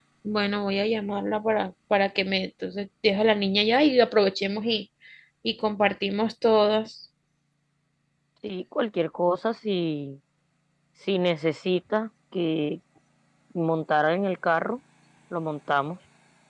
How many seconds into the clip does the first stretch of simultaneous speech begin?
none

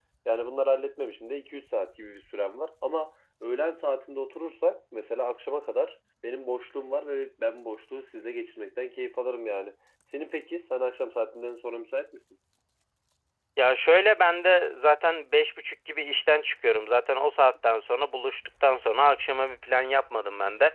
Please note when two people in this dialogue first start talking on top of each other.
none

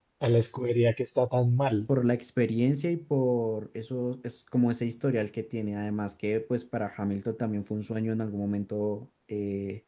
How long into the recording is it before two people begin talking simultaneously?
none

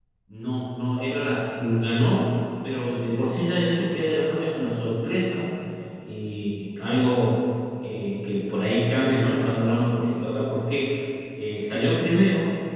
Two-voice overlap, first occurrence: none

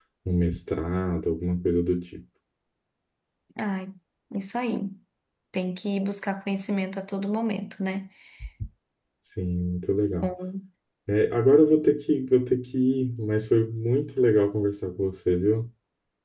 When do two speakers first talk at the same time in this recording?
none

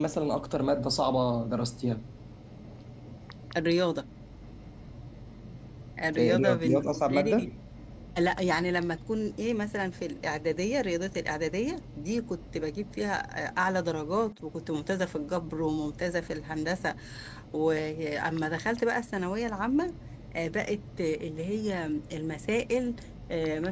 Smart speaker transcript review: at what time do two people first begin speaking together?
6.2 s

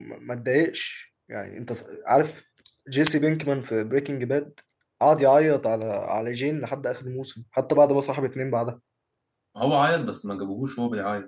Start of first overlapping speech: none

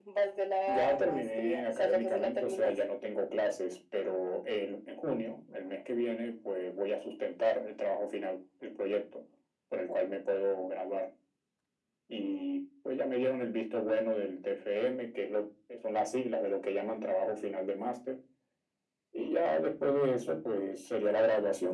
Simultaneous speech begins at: 0.7 s

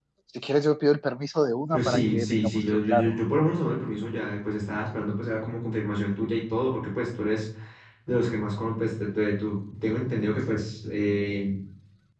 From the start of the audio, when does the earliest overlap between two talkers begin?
1.7 s

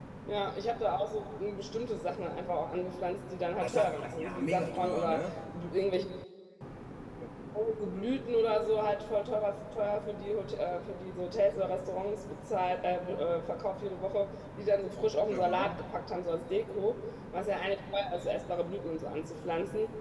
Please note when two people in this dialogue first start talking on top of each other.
3.6 s

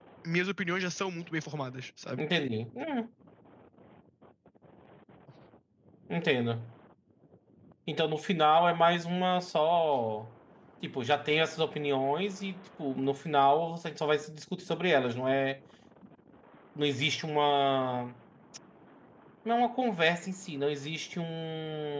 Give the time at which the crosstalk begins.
none

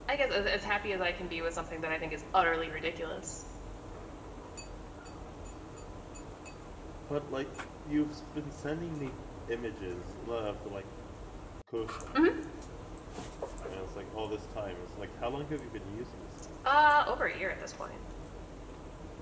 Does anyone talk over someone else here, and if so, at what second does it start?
none

